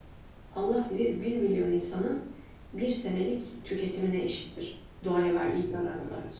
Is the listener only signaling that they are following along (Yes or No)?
No